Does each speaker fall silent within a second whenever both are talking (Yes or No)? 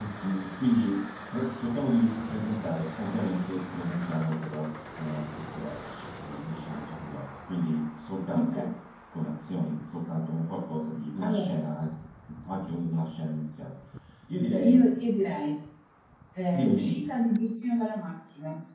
Yes